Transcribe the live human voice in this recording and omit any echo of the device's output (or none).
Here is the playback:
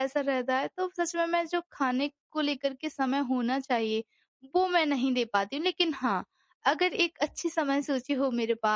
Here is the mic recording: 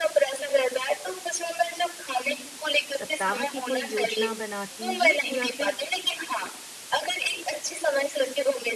सप्ताह की कोई योजना बनाती हैं या फिर